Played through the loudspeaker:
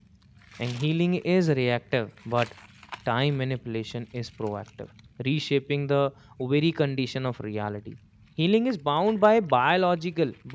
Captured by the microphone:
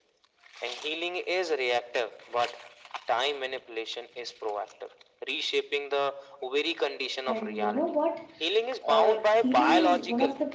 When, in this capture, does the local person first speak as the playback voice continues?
7.2 s

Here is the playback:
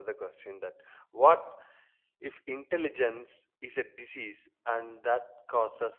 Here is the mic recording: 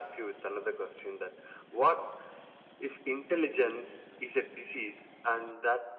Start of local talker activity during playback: none

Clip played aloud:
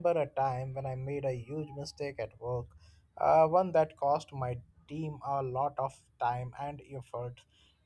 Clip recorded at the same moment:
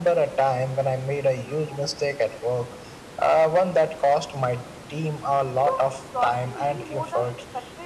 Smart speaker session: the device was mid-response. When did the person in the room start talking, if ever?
5.6 s

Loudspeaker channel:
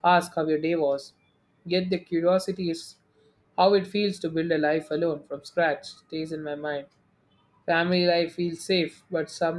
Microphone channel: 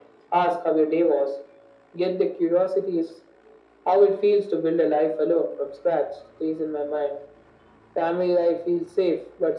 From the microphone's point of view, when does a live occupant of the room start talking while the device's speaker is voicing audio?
none

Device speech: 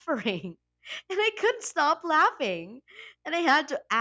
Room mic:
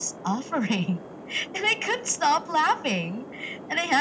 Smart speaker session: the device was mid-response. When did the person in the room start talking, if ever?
none

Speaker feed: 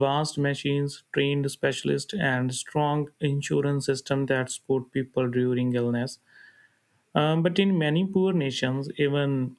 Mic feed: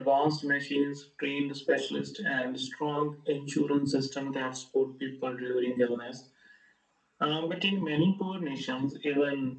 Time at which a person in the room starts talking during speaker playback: none

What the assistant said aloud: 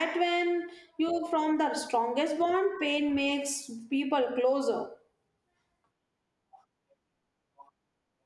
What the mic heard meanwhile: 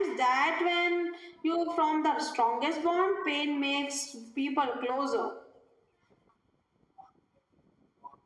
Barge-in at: none

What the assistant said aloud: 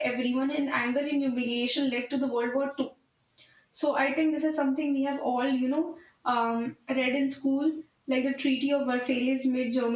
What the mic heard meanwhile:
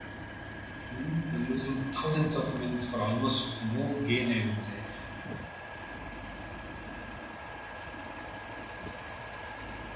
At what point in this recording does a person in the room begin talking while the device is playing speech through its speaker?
0.9 s

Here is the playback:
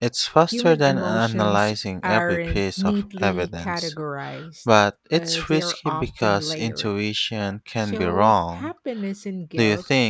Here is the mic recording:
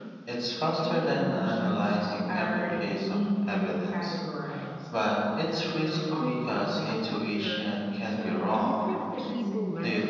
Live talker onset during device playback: 6.2 s

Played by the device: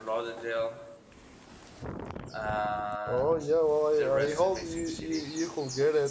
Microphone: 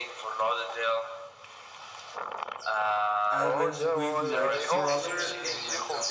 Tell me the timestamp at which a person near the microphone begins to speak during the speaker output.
3.3 s

